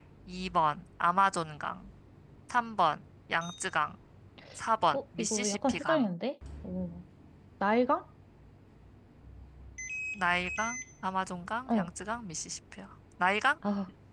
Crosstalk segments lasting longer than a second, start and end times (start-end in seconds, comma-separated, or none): 4.9-6.2